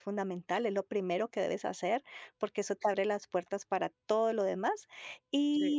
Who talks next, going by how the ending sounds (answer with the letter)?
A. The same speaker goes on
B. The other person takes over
A